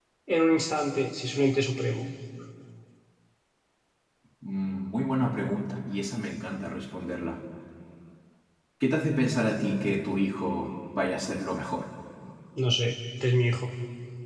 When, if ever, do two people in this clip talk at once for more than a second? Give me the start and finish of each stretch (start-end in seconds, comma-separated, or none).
none